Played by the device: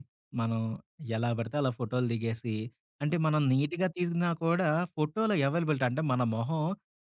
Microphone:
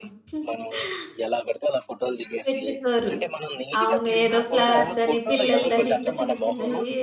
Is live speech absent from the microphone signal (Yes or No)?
No